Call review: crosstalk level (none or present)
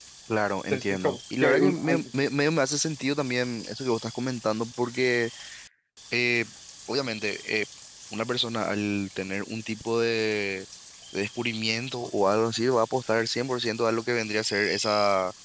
present